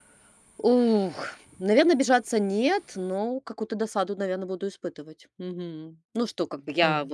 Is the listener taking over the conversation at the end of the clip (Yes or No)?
No